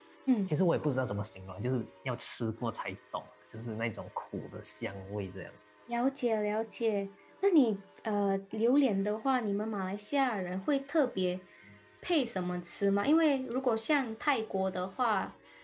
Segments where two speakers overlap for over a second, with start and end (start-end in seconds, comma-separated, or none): none